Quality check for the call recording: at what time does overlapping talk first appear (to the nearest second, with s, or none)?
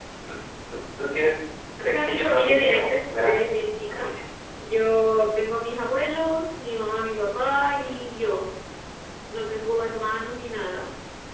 2 s